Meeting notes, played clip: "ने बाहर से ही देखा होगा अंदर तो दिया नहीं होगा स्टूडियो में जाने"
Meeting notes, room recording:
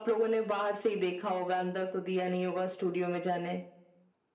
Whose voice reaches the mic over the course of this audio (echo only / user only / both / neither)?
echo only